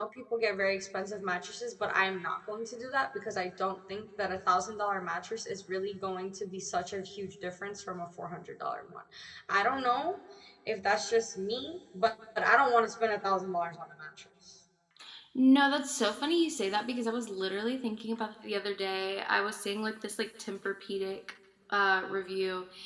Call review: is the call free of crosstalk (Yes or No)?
Yes